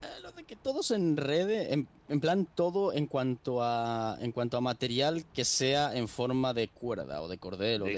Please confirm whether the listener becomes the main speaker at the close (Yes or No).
Yes